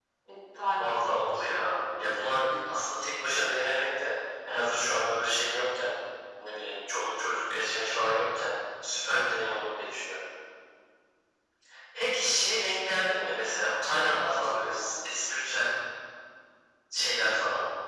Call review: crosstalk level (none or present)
present